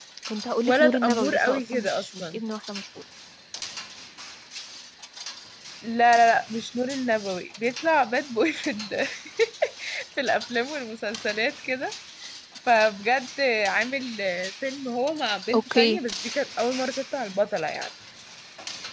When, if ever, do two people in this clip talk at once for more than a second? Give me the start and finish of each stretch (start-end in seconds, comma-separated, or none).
0.7-2.4